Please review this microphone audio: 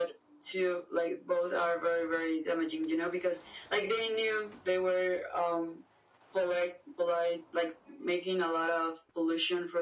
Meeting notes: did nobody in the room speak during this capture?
Yes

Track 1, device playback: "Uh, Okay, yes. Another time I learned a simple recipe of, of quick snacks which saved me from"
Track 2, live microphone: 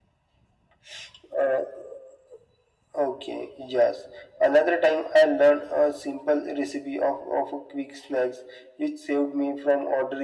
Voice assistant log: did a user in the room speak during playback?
No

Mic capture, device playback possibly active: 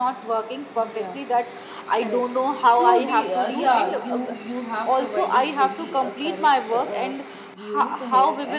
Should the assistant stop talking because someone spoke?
Yes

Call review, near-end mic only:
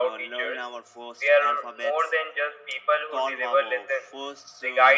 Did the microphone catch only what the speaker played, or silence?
No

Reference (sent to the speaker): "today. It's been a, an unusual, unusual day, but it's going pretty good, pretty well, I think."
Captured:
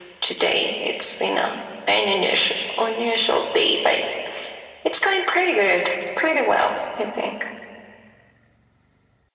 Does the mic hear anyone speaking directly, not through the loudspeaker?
No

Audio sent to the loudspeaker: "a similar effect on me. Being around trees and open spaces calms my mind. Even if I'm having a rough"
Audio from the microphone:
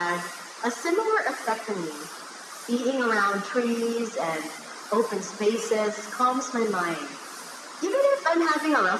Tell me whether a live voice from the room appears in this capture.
No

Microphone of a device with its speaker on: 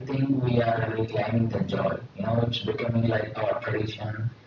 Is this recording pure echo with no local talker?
Yes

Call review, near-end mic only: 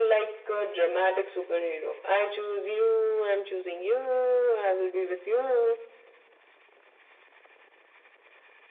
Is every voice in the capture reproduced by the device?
Yes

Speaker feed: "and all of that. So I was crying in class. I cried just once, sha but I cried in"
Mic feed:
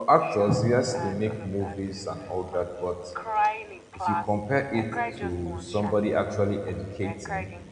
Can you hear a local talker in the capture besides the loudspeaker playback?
Yes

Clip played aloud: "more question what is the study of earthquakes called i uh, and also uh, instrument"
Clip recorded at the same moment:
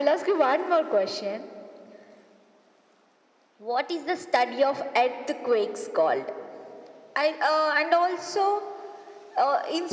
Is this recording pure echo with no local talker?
Yes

